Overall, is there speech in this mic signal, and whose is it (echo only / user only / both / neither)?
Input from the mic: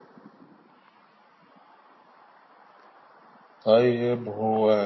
user only